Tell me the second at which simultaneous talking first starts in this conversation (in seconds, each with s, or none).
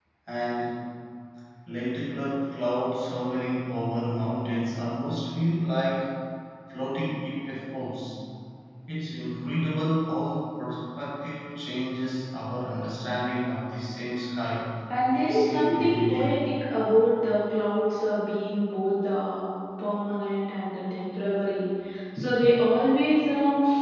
14.9 s